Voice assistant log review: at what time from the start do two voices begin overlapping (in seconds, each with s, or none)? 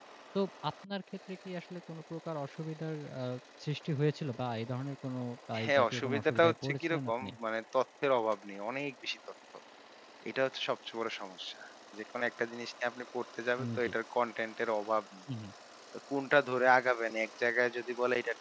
5.6 s